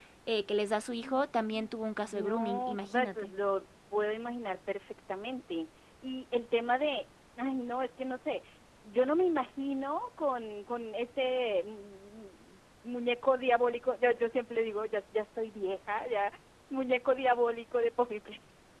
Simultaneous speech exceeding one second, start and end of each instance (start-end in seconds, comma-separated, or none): 2.0-3.3